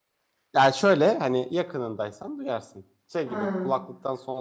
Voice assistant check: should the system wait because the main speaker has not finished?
Yes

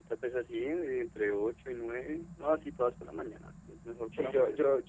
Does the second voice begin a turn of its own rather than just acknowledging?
Yes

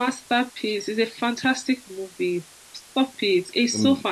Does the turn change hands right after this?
No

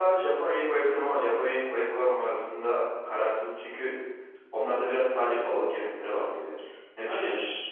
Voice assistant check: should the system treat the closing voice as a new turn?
Yes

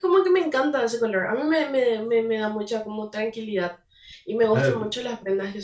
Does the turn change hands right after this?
No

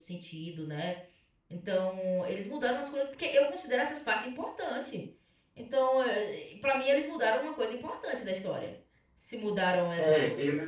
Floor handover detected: Yes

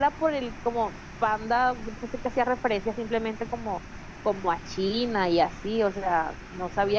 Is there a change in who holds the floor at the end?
No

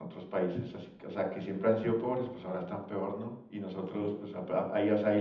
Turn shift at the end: No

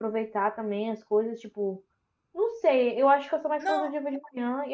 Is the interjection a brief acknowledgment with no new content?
Yes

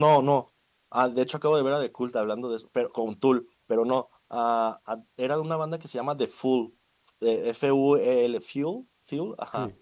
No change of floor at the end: Yes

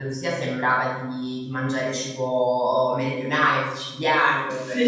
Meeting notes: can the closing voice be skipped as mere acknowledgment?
Yes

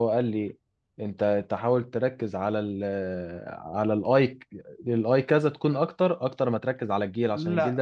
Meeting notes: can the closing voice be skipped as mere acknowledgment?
No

